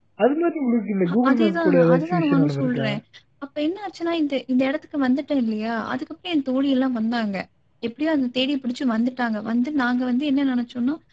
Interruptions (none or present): present